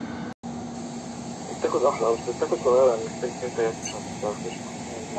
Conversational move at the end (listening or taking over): taking over